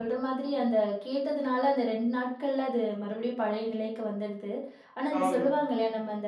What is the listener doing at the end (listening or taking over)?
listening